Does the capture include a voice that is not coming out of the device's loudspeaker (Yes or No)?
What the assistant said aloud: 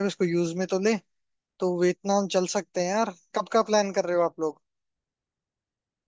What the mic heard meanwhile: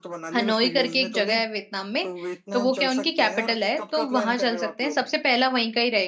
Yes